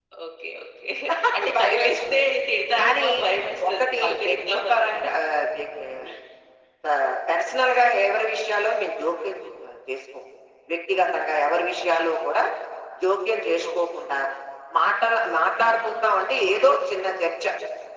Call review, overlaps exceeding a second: present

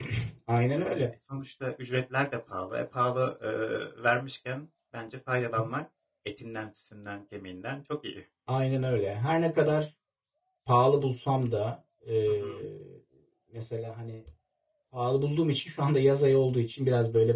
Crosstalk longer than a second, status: none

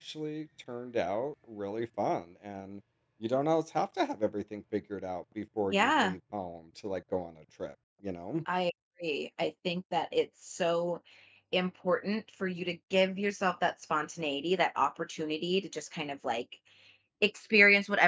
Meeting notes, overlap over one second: none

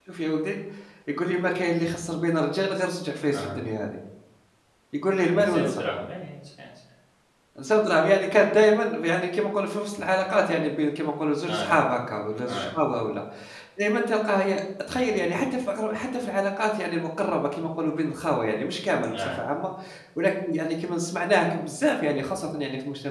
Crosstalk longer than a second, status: none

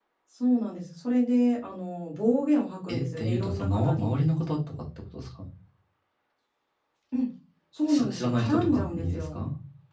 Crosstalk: present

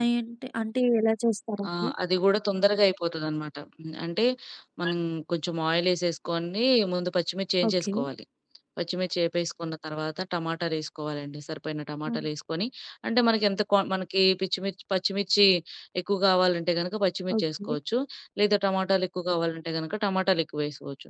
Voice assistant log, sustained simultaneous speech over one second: none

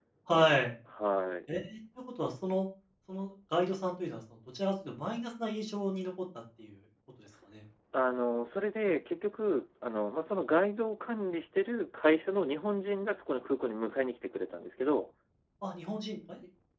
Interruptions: none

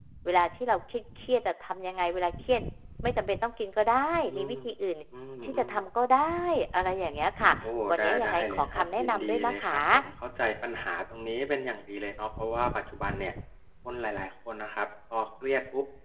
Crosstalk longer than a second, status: present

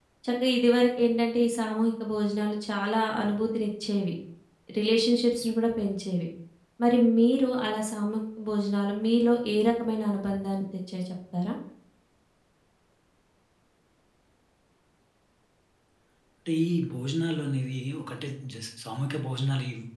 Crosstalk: none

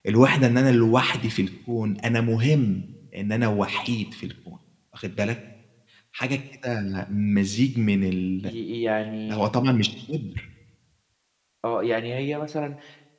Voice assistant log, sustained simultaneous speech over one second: none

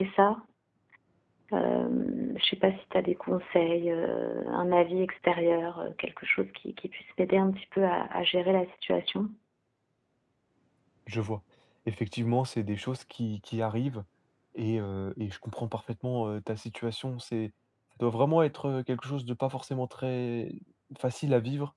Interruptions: none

